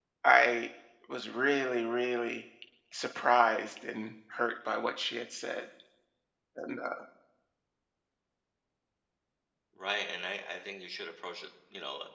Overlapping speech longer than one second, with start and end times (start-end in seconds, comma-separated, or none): none